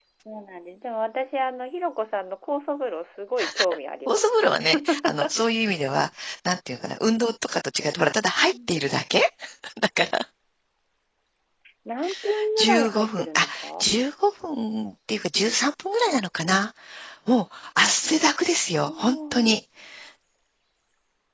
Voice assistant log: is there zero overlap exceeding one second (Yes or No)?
No